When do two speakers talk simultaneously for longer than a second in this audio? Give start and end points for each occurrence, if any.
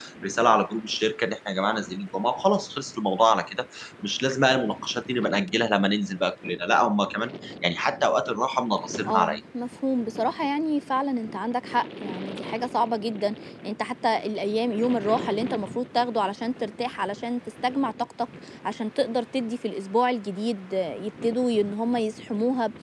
none

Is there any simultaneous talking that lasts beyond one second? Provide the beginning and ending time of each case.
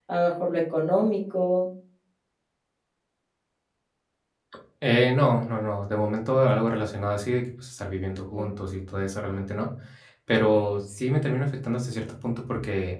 none

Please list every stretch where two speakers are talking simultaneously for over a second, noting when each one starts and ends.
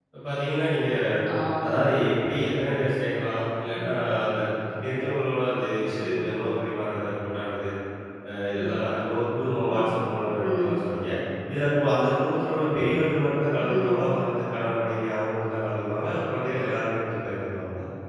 none

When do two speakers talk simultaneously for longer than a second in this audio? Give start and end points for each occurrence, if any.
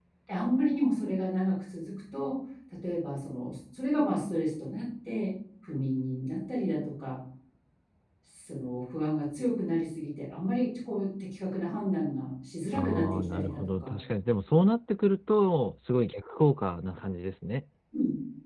12.7-13.9

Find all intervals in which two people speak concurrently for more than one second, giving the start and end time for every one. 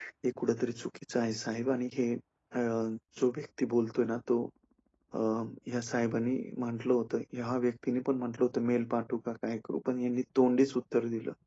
none

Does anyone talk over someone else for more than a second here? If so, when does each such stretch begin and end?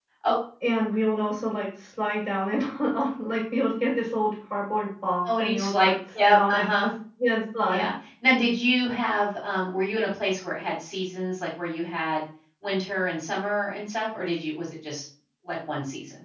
5.2-6.9

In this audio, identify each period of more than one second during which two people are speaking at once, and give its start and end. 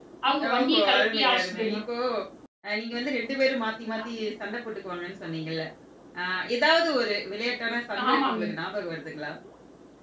0.5-1.8

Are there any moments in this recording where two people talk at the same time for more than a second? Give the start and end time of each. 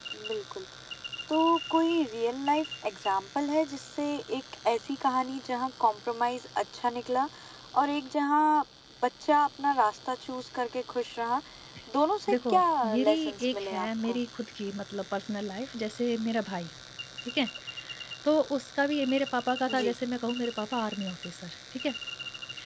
12.9-14.2

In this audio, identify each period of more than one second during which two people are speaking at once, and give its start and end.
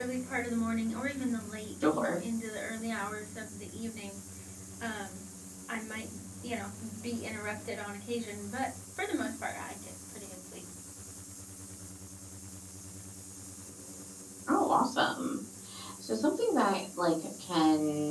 none

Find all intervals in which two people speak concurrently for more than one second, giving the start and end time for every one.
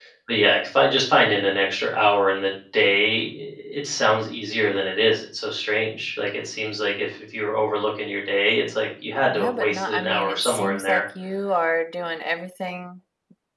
9.3-11.0

